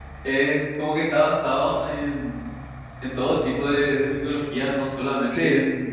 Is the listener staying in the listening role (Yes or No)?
Yes